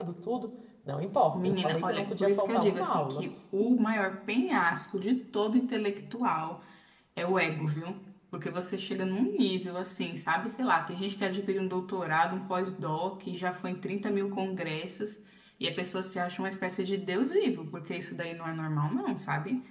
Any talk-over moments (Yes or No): Yes